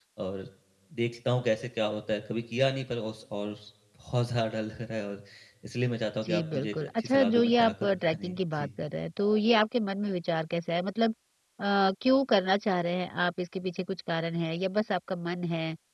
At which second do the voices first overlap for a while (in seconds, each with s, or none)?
6.2 s